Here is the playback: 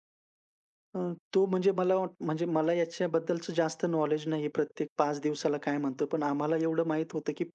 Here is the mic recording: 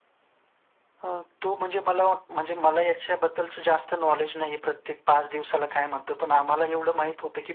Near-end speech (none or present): none